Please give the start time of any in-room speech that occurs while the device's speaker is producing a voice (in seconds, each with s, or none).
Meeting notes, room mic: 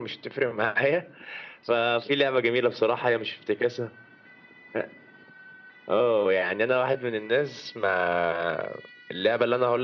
none